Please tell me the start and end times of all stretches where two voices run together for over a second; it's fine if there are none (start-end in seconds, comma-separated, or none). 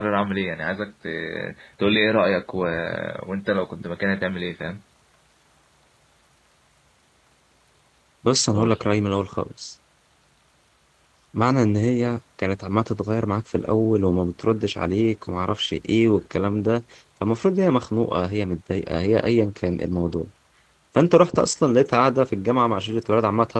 none